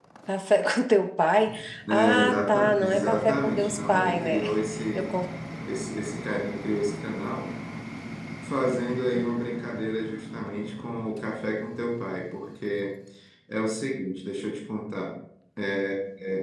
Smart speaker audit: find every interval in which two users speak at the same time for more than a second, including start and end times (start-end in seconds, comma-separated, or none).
1.9-4.4